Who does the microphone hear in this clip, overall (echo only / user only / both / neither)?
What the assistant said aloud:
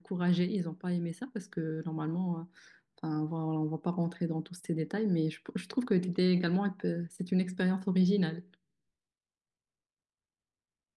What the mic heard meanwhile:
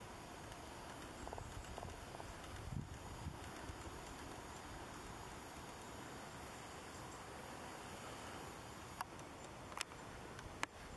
neither